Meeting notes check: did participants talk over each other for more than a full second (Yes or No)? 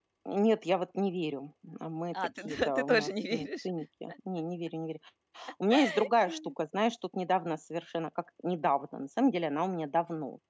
Yes